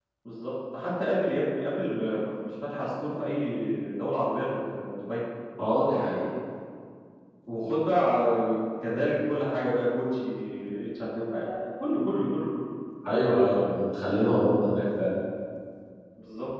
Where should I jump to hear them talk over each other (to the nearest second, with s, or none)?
none